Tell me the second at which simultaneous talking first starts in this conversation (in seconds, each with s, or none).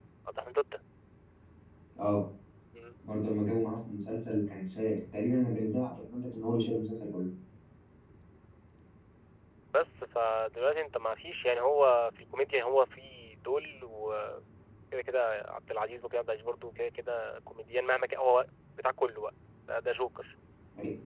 none